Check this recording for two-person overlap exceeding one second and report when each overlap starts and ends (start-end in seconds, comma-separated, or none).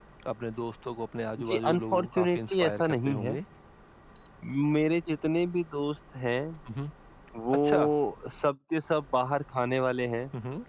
1.5-3.4